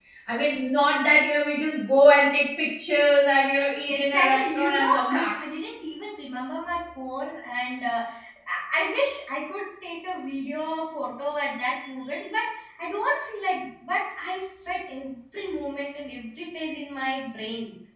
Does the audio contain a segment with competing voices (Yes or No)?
Yes